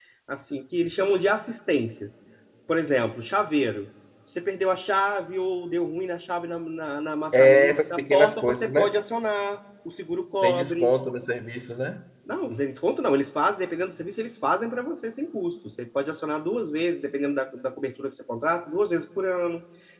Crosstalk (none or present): present